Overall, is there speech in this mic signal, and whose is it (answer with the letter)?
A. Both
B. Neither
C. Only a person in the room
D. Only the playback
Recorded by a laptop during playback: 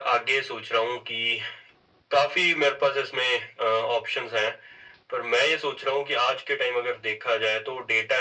D